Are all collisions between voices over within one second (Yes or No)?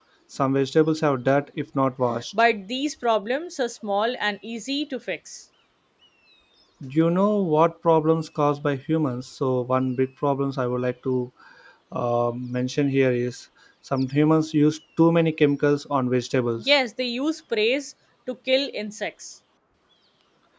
Yes